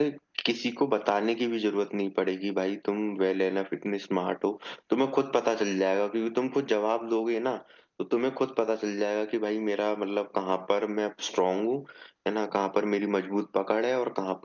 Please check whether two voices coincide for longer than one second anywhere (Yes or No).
No